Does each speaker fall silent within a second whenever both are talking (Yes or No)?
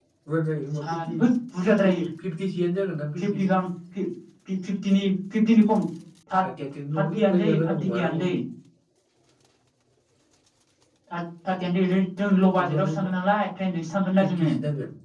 No